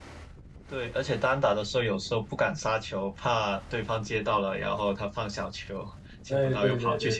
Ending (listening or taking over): taking over